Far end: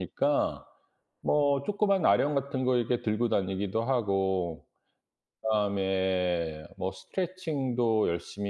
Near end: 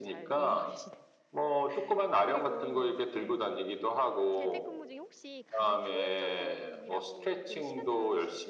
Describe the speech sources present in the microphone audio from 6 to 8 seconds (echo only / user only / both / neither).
both